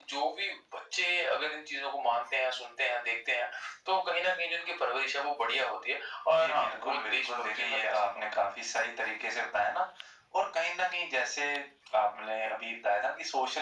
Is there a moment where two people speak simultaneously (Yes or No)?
Yes